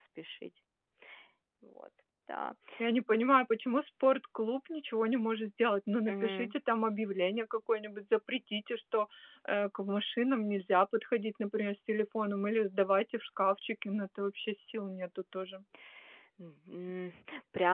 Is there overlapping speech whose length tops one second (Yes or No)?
No